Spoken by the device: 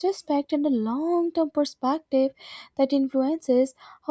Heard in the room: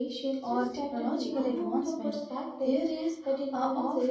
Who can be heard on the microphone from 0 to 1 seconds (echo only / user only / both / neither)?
both